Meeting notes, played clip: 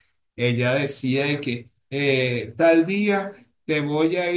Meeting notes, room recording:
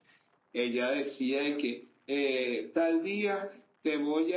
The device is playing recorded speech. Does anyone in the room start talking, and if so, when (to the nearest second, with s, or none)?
none